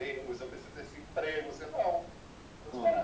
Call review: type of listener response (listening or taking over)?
listening